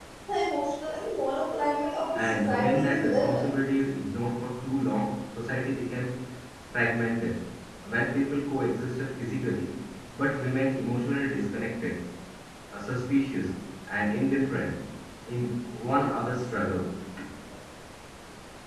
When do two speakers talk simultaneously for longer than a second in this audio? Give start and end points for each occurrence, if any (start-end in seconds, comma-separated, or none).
2.1-3.5